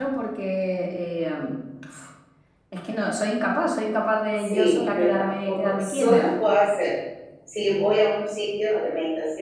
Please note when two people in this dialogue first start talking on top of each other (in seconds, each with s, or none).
4.4 s